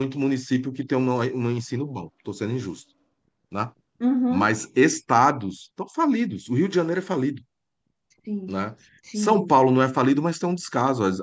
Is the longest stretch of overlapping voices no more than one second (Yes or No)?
Yes